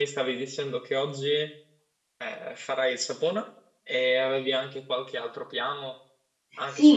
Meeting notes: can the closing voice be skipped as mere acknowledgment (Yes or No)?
No